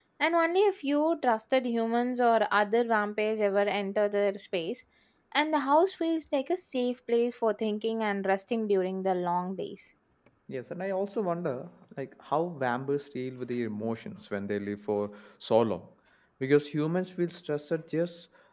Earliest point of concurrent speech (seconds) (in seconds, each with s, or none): none